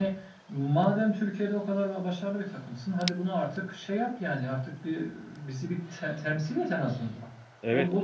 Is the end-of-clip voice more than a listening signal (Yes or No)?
Yes